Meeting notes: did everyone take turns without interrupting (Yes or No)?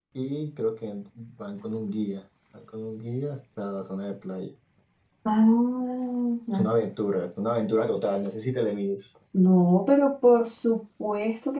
Yes